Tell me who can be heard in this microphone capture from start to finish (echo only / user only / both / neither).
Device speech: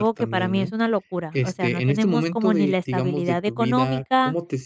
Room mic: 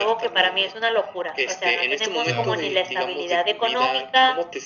both